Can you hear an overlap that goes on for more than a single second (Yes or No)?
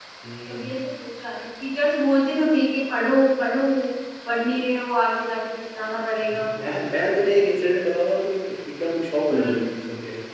No